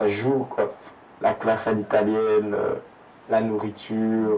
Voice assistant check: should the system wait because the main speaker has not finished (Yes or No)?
No